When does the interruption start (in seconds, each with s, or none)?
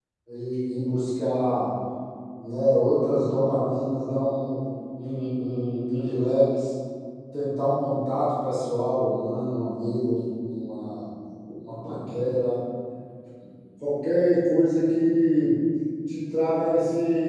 none